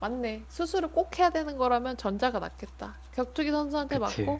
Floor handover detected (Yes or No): No